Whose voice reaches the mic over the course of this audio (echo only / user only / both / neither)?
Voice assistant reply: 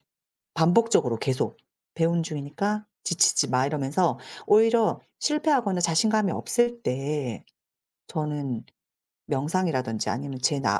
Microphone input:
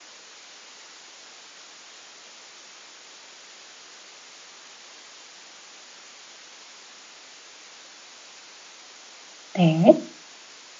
user only